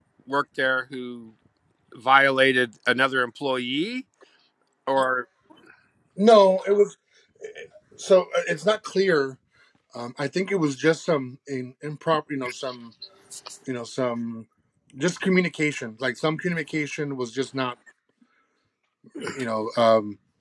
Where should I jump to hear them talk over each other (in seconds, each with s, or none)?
none